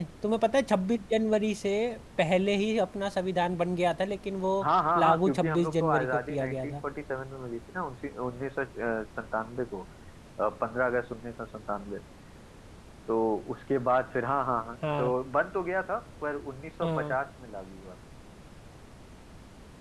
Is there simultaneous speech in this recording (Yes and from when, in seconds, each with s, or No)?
Yes, from 5.0 s